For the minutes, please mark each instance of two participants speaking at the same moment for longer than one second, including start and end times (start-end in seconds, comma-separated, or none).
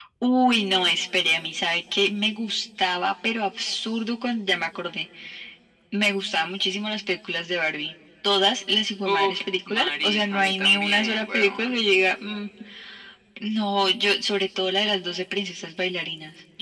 9.1-11.8